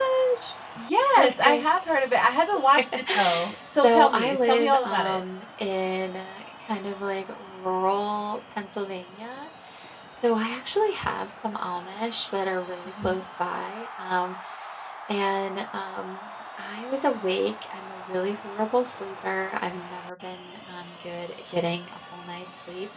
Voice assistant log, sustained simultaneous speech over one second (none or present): present